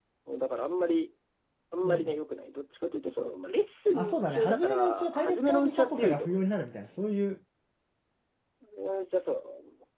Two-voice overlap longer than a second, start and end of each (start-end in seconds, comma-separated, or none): 3.9-6.4